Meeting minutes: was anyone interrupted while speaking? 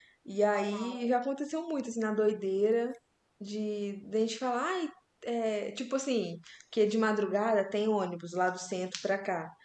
No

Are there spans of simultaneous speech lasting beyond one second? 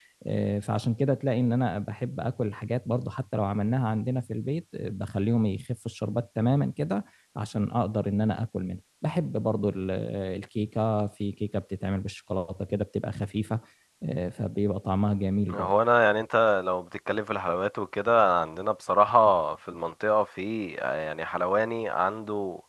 No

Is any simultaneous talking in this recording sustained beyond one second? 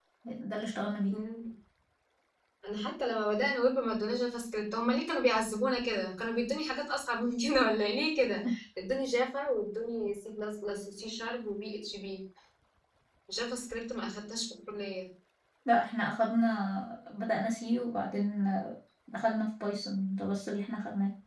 No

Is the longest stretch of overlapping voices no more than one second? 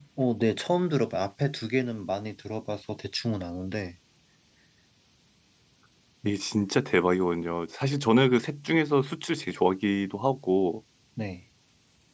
Yes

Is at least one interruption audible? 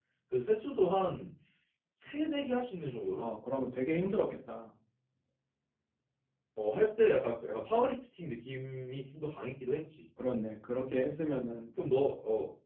No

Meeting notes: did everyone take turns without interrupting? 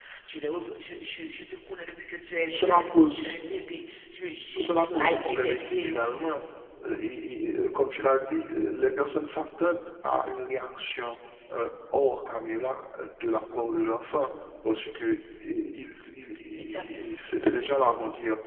No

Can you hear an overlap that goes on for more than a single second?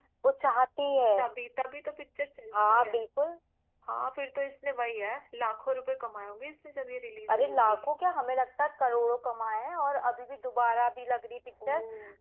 No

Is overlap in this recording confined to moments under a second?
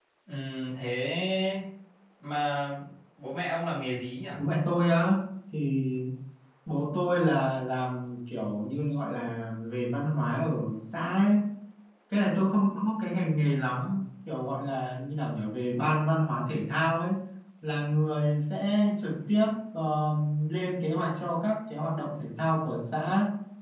Yes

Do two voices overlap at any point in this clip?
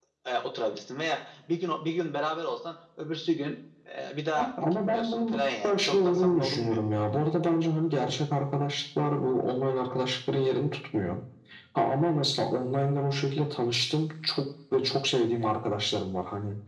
Yes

